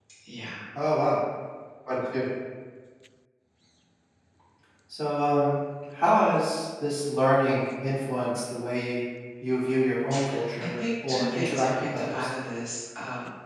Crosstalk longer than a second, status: present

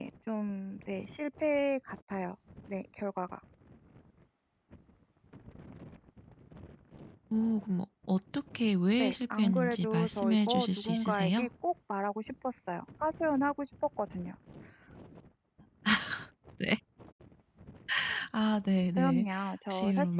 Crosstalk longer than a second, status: present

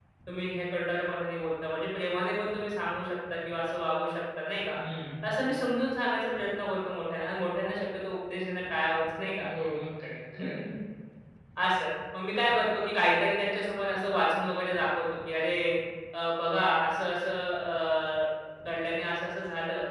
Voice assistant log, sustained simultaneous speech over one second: none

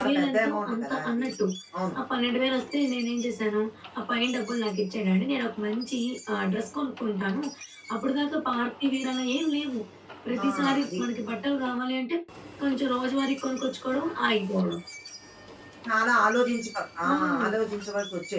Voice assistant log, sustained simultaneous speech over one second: present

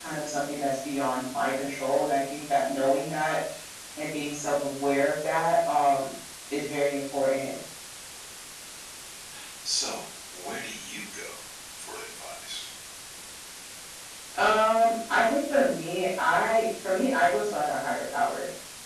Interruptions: none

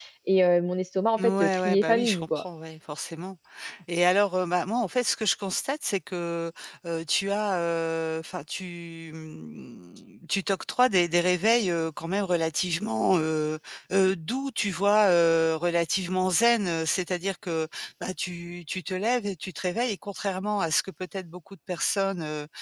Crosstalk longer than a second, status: present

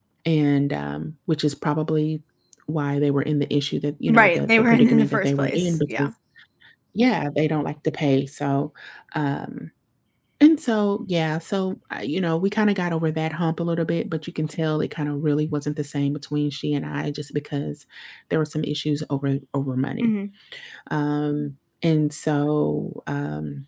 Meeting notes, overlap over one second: present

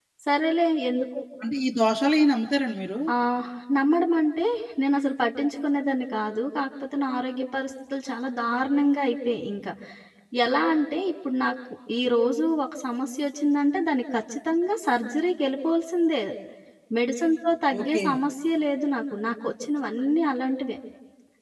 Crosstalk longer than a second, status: none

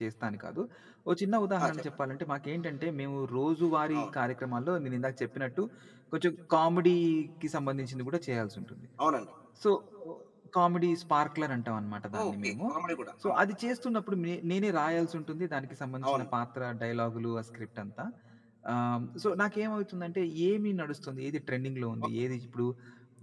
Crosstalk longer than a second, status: none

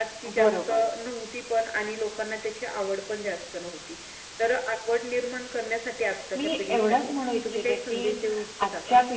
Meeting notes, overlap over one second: present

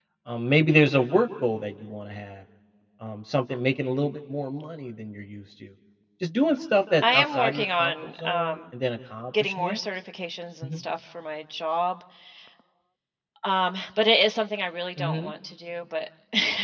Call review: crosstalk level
present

